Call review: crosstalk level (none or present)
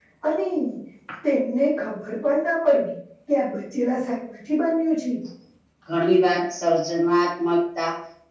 none